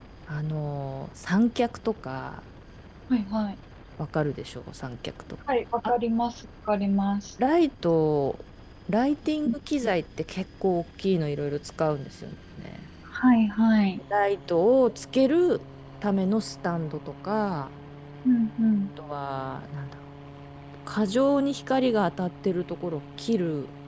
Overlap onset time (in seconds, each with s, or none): none